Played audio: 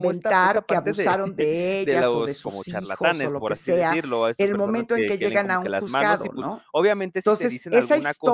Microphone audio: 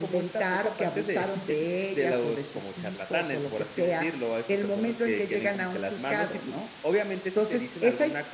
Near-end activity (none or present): none